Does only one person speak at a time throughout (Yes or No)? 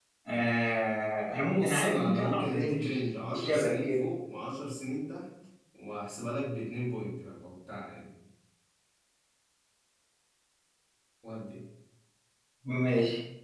No